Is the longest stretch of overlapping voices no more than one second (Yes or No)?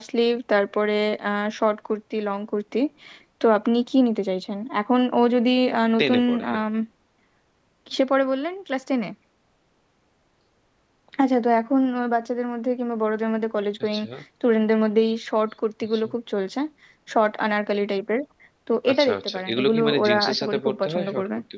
No